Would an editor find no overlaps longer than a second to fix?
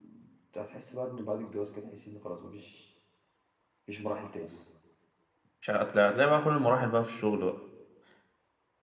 Yes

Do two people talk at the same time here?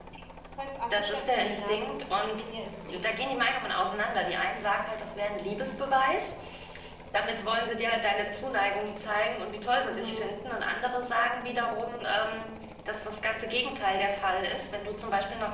Yes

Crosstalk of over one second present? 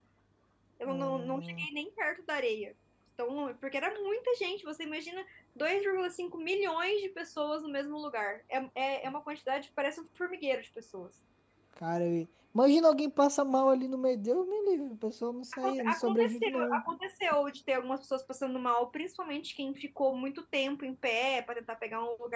Yes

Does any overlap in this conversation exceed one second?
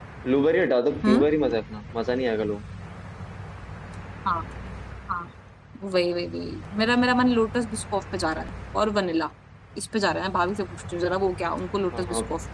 No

